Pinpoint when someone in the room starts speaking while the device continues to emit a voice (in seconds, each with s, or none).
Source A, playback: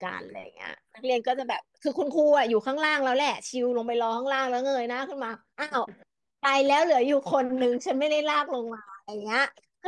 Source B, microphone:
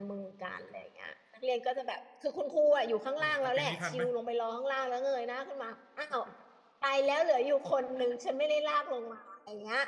3.2 s